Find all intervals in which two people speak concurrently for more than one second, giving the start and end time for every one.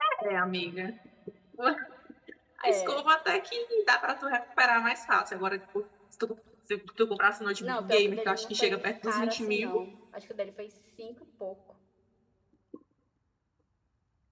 7.6-9.7

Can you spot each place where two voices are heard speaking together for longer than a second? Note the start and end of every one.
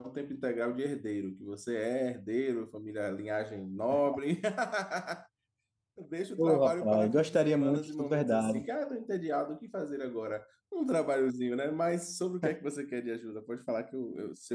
6.4-8.6

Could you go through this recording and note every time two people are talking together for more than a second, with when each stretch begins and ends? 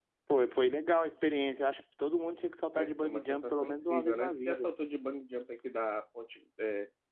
2.7-4.7

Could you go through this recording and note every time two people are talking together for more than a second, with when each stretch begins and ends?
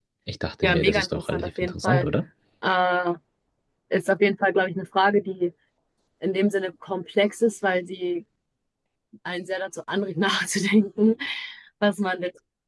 0.6-2.1

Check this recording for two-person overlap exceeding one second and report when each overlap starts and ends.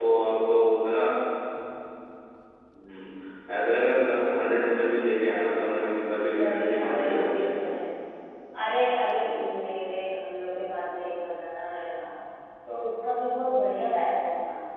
6.3-7.6

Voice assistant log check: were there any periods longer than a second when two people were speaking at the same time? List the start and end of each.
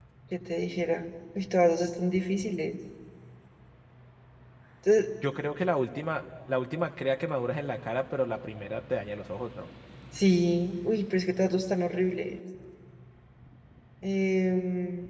none

